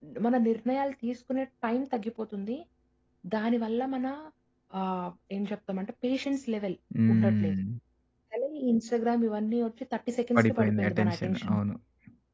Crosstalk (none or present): present